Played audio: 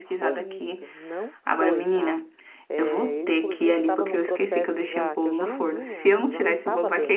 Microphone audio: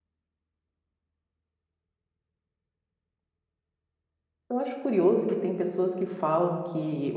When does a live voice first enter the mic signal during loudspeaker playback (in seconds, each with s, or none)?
4.5 s